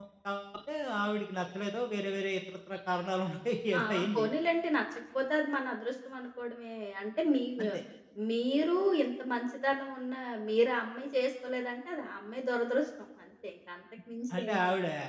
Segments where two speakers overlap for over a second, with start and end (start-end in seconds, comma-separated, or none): none